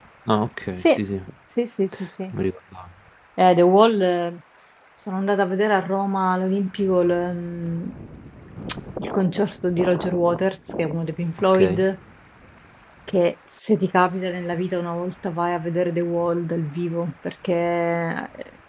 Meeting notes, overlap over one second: none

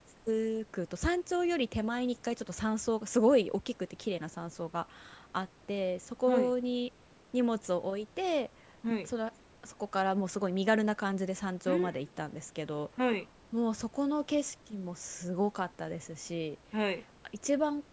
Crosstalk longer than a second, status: none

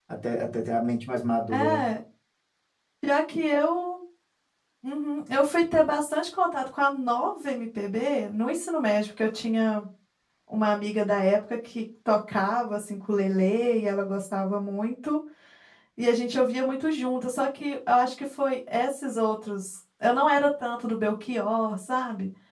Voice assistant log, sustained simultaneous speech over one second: none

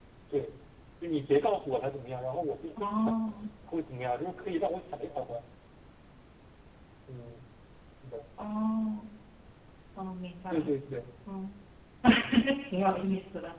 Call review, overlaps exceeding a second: none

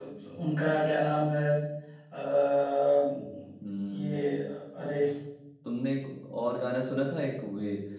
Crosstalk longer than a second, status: none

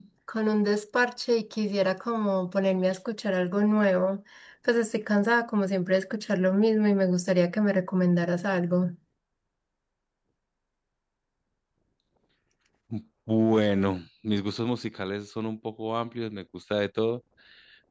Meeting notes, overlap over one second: none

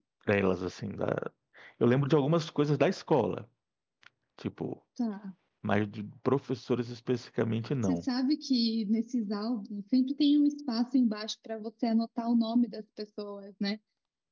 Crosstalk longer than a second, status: none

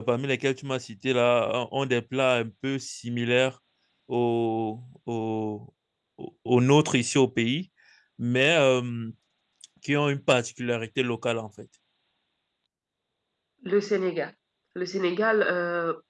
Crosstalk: none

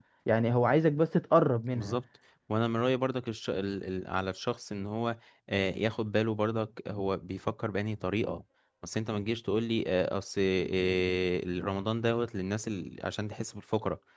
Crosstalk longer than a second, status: none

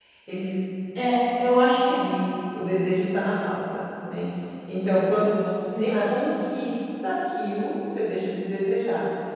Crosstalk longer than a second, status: none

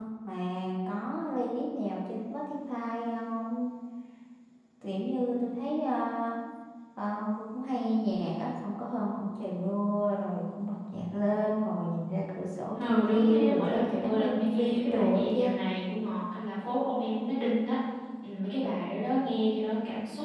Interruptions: present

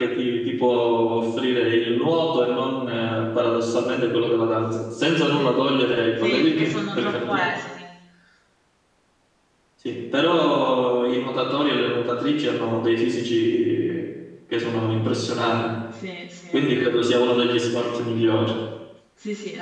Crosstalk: present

